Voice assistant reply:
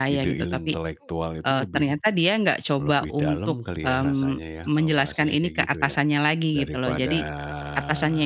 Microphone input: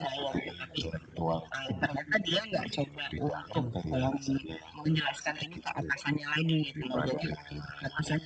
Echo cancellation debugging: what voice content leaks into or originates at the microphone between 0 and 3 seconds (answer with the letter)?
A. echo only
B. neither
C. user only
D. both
A